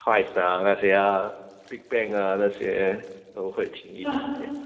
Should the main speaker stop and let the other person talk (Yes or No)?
Yes